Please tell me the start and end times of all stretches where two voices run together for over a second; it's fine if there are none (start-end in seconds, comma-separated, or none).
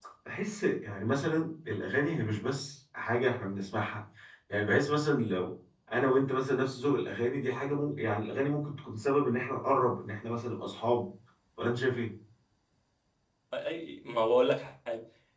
none